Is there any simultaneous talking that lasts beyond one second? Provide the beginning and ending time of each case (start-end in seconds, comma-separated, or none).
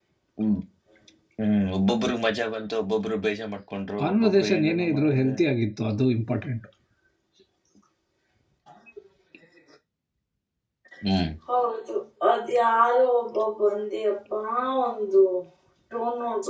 4.0-5.3